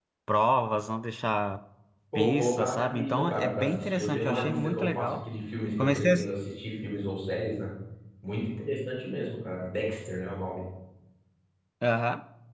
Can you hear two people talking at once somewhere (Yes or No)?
Yes